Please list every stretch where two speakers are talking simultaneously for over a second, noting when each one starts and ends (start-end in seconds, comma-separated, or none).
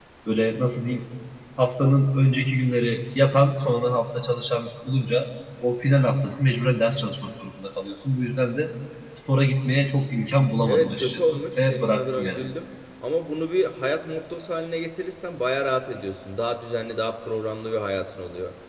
10.7-12.4